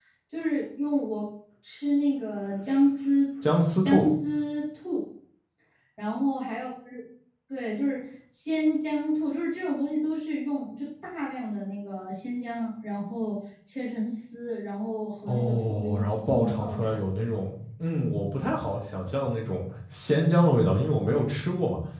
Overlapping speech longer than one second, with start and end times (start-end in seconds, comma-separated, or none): 15.3-16.8